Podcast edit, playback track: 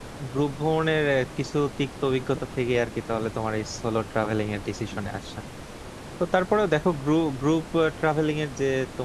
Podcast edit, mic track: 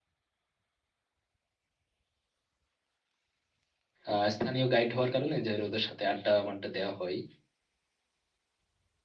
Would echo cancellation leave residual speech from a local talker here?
Yes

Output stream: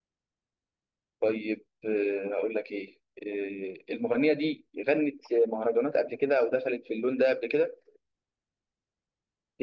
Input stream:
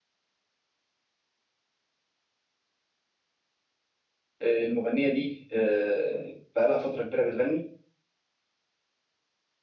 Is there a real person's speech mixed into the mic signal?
Yes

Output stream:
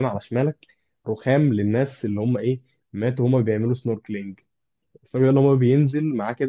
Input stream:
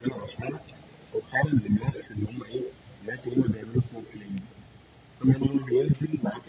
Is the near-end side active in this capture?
No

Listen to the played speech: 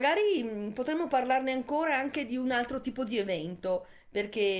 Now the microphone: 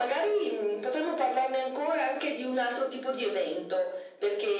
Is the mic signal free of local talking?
Yes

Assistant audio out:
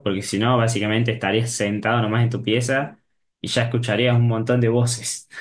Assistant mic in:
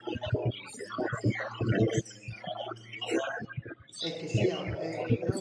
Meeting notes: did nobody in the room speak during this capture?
No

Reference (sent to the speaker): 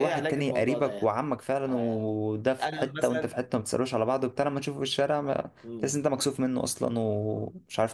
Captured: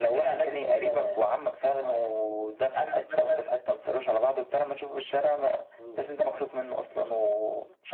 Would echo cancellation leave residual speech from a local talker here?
No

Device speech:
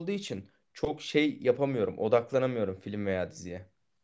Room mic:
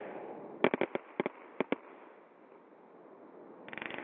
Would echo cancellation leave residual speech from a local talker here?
No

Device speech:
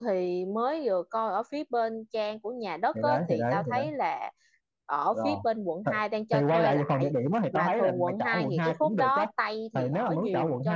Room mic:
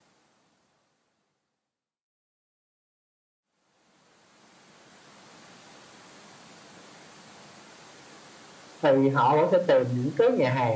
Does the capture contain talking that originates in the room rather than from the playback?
Yes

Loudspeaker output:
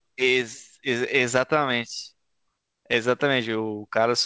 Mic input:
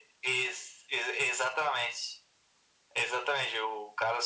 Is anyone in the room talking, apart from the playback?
No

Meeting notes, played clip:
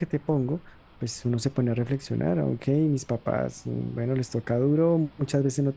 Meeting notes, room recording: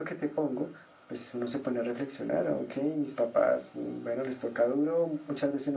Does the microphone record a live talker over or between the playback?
No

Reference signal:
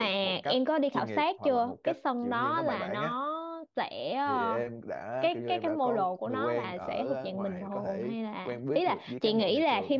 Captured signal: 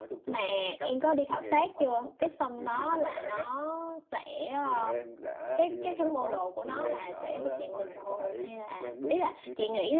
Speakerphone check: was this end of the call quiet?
Yes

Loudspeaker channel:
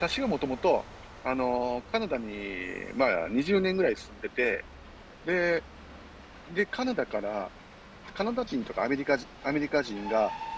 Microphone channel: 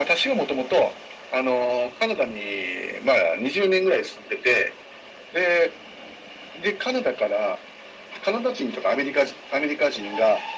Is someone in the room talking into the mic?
No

